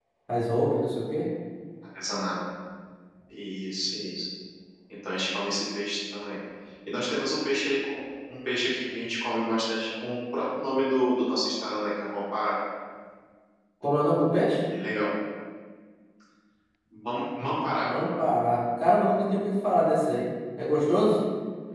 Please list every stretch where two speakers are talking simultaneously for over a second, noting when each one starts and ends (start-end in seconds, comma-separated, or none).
none